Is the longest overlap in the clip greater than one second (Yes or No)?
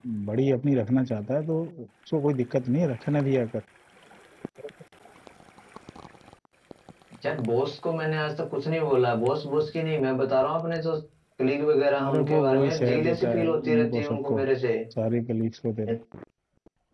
Yes